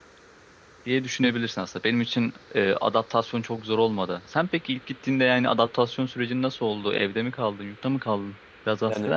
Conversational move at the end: taking over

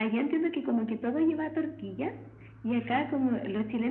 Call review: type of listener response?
listening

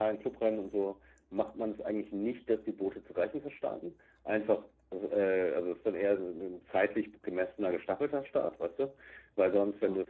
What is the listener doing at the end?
listening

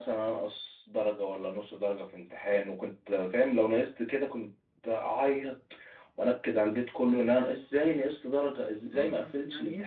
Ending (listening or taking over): taking over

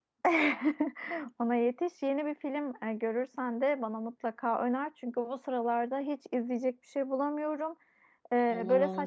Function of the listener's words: listening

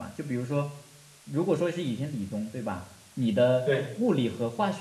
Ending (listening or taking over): listening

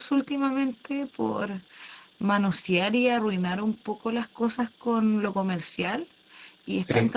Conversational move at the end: listening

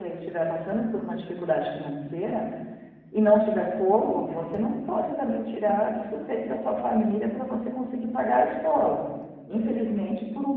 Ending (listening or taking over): listening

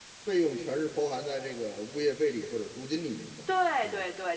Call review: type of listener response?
taking over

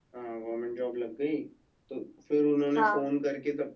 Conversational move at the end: listening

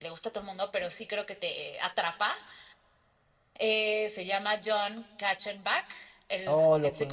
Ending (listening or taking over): taking over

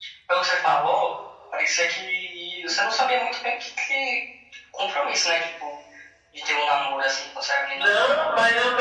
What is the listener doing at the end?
taking over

